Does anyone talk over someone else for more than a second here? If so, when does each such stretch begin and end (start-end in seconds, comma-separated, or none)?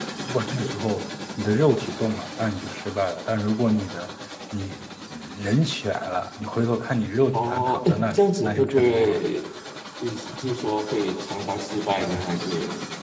7.3-9.2